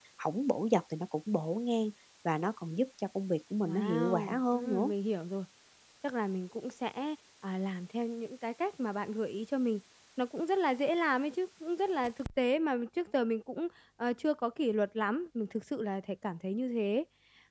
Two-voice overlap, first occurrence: 3.7 s

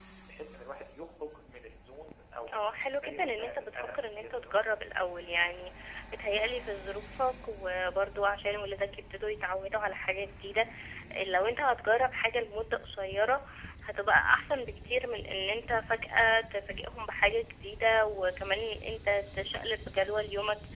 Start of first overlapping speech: 2.5 s

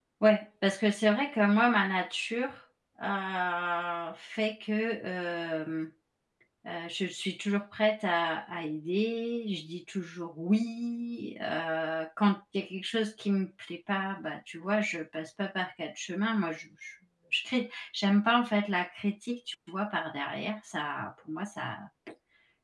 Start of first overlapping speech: none

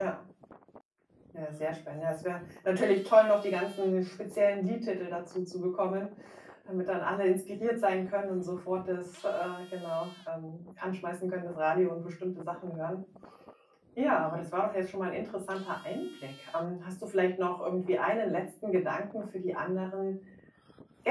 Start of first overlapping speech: none

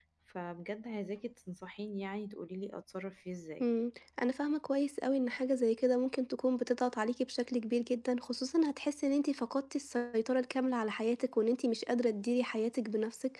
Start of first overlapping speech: none

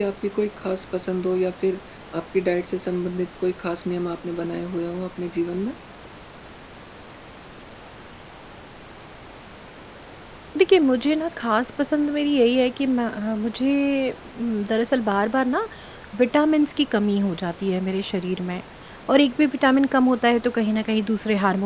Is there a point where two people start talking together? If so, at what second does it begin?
none

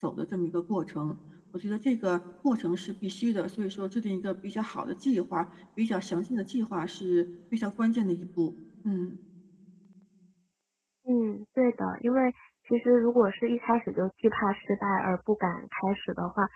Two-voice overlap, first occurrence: none

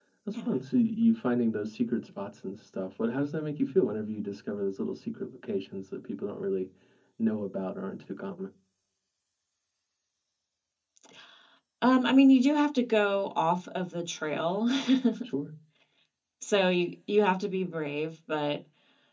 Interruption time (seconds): none

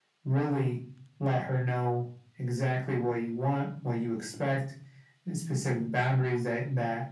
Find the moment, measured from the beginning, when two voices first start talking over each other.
none

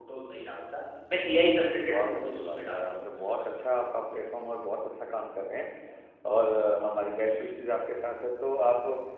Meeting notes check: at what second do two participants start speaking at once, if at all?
1.4 s

